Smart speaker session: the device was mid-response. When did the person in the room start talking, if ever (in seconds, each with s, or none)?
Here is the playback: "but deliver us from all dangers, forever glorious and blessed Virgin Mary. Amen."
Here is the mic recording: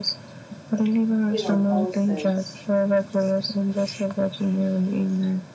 1.3 s